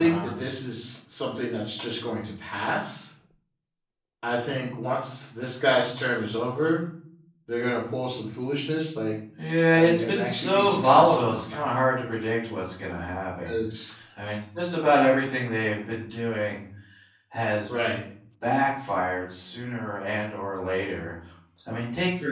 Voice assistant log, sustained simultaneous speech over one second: present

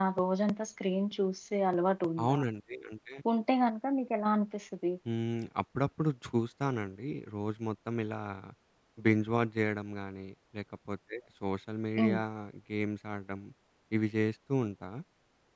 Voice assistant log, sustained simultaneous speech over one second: none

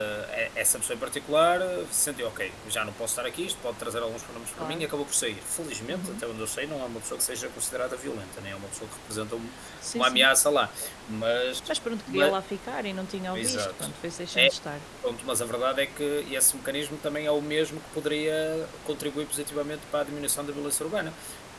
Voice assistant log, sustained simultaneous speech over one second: none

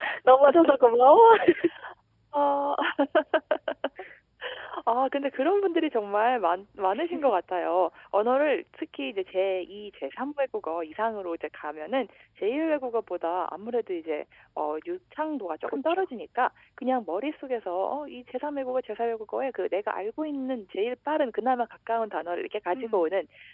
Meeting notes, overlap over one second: none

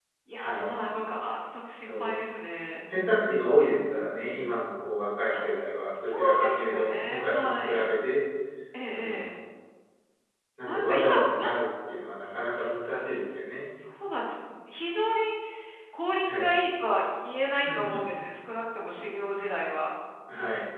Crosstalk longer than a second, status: present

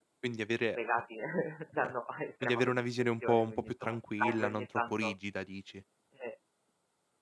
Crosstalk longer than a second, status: present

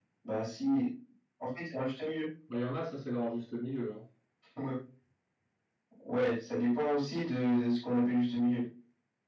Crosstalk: none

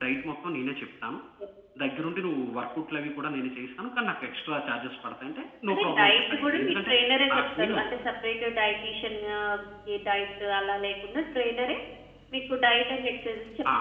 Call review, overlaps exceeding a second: present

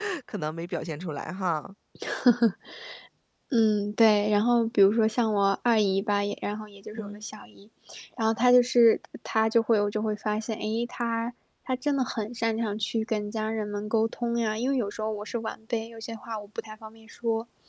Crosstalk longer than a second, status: none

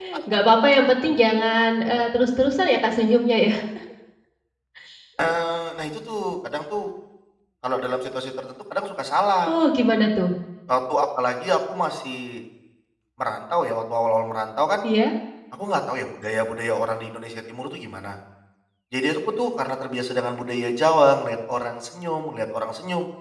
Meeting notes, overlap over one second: none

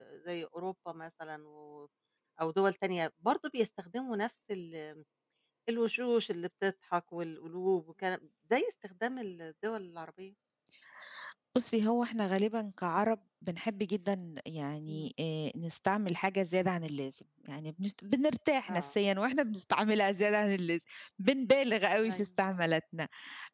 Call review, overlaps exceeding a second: none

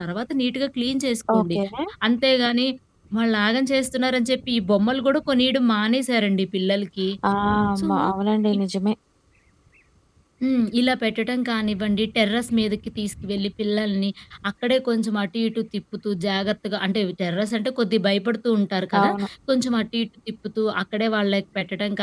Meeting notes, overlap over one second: none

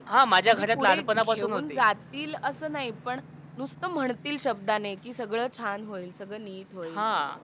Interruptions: present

